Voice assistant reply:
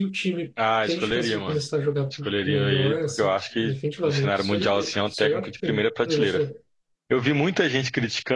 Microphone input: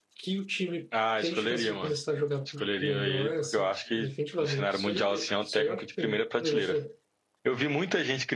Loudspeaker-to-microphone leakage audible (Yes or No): Yes